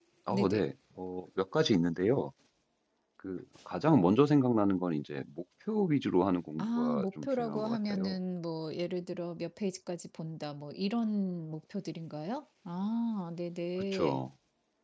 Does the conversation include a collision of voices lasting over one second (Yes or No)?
Yes